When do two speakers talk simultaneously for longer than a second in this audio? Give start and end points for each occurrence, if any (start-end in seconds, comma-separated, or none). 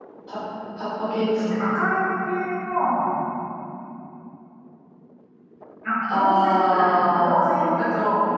6.1-7.5